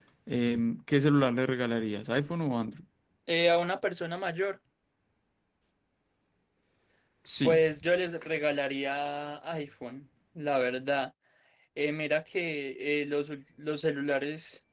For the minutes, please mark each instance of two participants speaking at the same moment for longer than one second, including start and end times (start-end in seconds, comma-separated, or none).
none